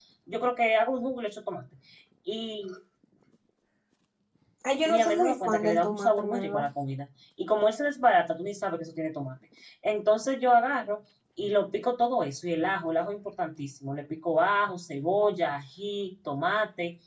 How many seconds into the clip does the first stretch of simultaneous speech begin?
5 s

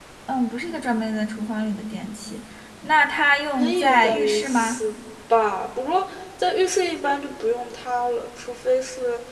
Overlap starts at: 4 s

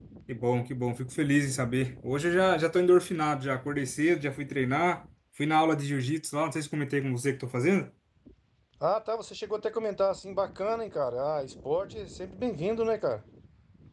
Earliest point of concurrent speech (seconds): none

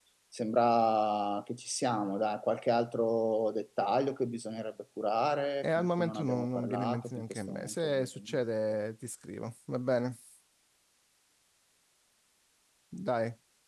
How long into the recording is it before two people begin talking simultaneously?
6 s

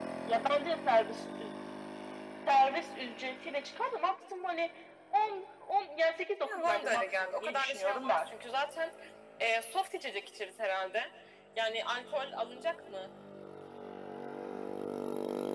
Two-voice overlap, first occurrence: 6 s

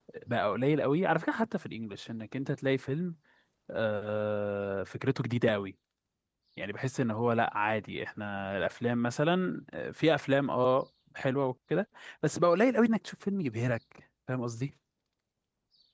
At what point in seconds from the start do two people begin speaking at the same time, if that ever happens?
none

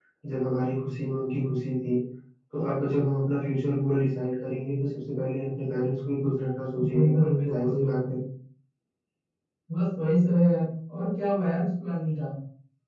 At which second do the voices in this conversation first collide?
7 s

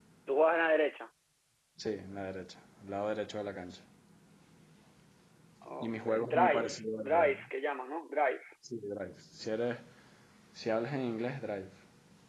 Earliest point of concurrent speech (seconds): 6 s

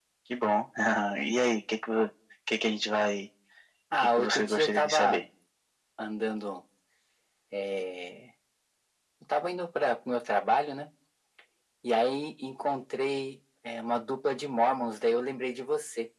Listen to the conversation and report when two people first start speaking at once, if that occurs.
4 s

